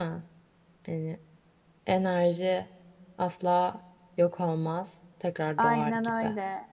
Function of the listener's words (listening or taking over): taking over